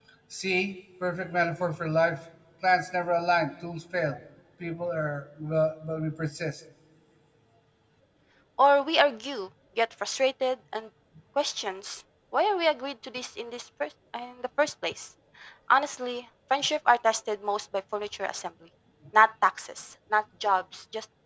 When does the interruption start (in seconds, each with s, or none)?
none